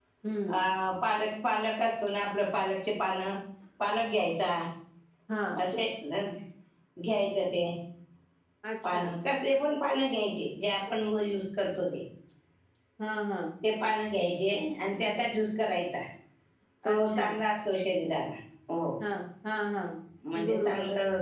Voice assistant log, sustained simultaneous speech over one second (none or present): none